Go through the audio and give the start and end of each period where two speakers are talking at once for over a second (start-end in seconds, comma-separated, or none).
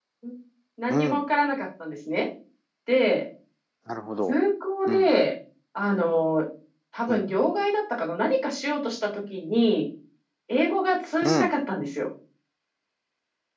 none